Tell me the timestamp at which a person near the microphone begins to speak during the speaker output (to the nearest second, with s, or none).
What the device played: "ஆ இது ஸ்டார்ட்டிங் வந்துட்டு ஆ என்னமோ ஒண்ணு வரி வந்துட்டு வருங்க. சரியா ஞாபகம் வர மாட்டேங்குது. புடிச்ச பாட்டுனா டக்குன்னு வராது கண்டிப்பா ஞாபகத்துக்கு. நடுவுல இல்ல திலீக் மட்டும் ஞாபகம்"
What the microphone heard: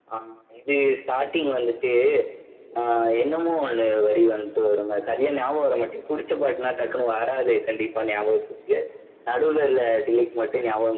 none